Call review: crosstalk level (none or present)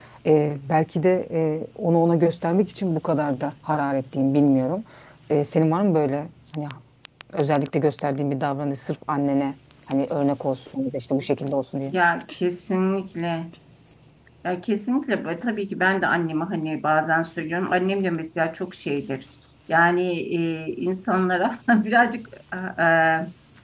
none